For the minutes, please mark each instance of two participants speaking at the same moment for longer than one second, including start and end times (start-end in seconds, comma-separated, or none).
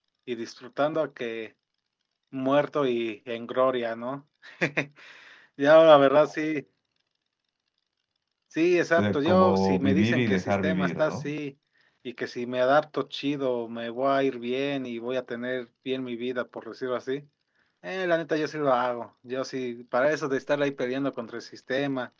9.0-11.3